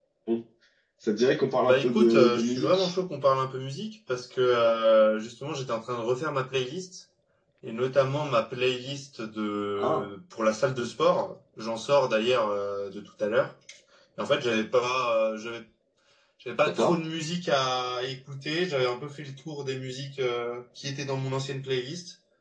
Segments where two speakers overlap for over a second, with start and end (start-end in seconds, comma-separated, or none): 1.6-2.9